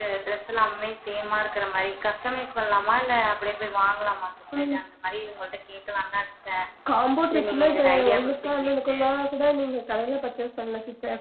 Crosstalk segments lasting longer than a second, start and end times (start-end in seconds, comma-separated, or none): 7.3-9.0